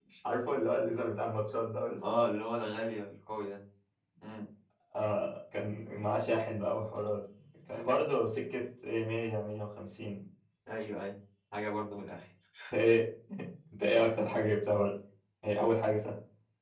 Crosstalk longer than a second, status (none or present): none